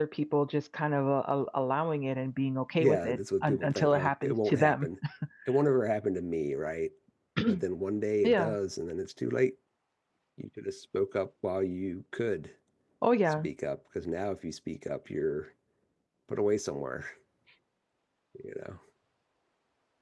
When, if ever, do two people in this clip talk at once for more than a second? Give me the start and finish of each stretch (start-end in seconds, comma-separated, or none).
2.8-4.9